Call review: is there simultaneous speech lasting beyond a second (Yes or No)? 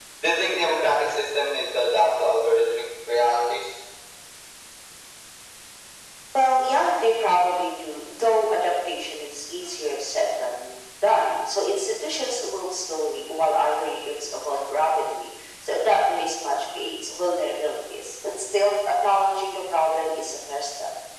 No